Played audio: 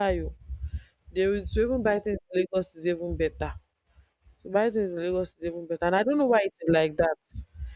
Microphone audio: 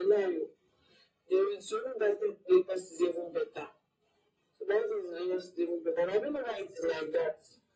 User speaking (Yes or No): No